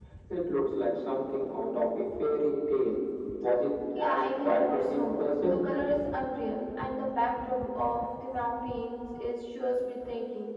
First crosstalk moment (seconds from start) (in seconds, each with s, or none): 4.0 s